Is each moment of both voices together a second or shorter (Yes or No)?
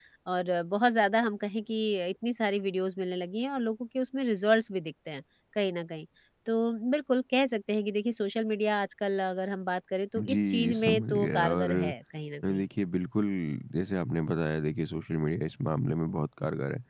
No